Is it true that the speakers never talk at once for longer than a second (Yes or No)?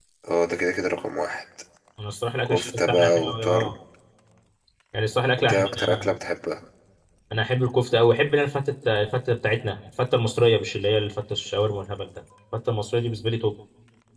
No